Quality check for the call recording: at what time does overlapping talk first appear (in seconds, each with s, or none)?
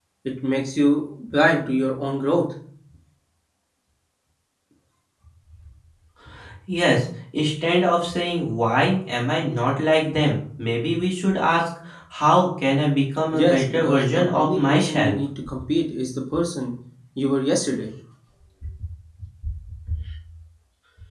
13.3 s